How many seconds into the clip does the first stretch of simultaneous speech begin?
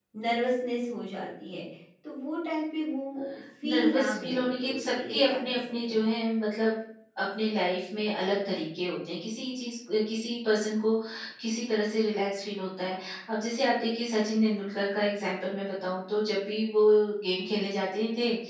3.6 s

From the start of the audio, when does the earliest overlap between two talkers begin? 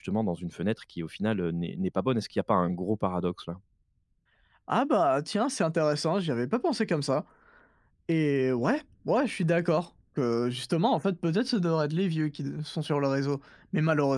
none

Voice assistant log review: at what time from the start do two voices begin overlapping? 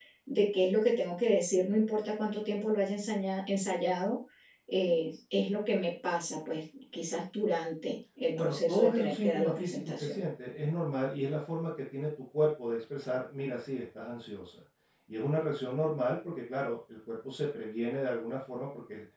8.3 s

